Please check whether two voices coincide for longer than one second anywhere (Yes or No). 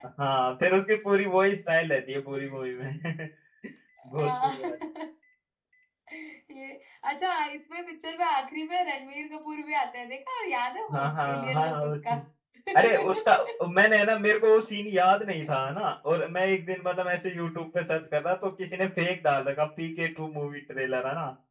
Yes